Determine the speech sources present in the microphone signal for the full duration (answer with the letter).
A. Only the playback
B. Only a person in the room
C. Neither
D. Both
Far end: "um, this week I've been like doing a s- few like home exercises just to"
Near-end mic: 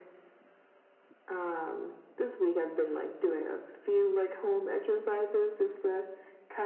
A